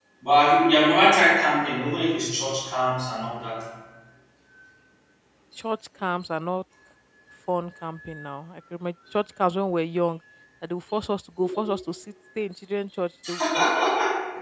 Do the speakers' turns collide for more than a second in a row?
No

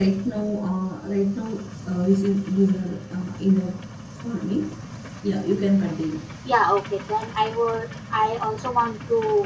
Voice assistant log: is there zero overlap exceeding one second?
Yes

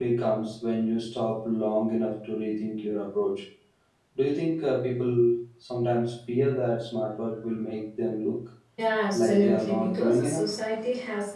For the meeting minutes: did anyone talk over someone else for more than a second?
Yes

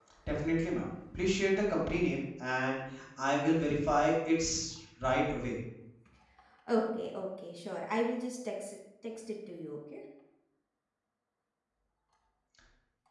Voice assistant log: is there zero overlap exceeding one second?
Yes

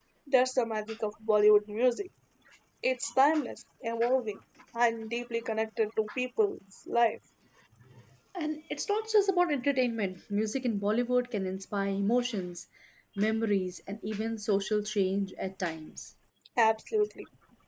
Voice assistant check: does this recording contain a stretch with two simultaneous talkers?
No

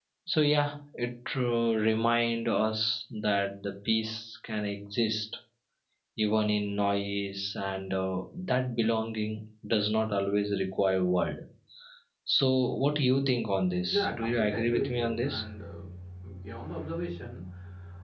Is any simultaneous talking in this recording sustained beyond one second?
Yes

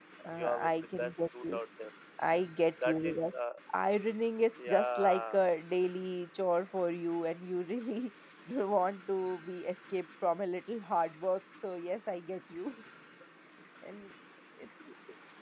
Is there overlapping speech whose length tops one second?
Yes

